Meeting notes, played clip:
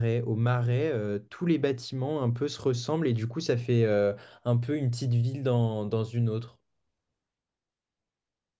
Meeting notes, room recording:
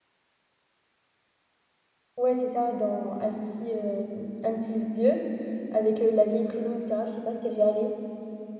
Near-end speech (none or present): present